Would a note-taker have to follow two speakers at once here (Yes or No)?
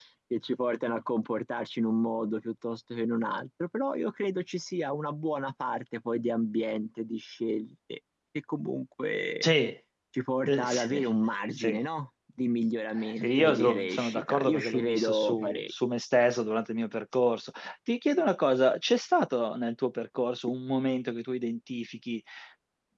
Yes